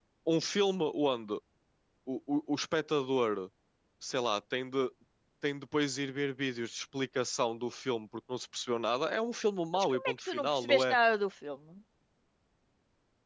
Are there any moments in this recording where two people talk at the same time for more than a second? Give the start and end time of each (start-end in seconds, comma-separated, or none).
9.7-10.9